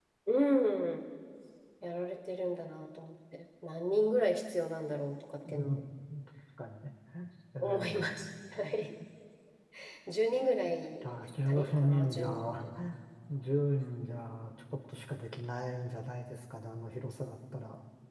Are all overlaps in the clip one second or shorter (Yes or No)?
No